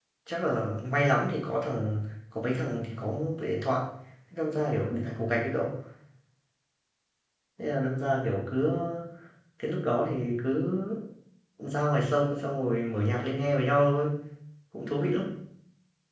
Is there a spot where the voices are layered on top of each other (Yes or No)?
No